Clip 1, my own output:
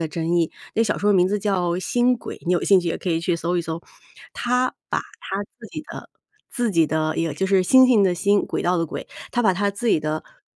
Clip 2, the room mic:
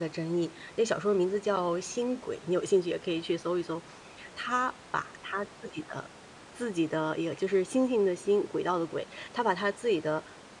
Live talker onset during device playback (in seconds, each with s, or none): none